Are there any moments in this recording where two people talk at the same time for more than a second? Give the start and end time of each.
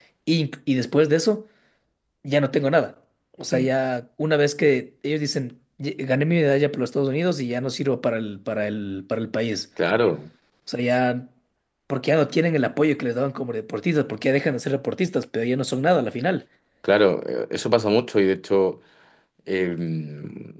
none

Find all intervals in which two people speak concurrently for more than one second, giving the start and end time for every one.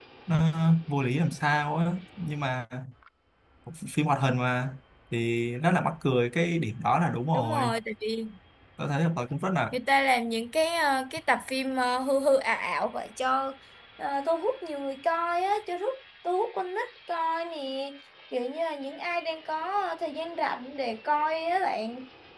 none

